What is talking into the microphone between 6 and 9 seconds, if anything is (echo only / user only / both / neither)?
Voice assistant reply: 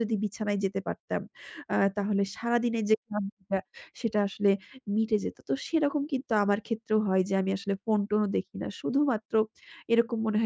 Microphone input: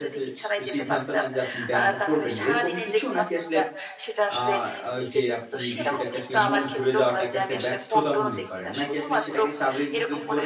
both